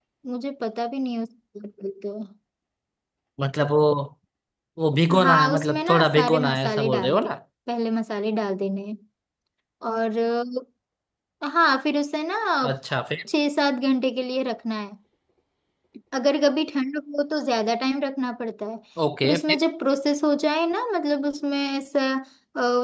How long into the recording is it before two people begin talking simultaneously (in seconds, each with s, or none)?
5.2 s